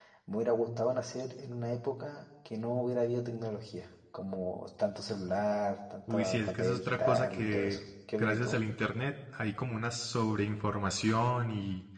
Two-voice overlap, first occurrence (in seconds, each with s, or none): 6.1 s